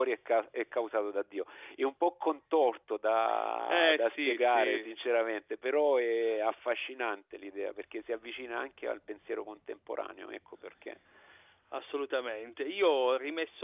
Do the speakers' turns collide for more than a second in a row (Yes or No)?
Yes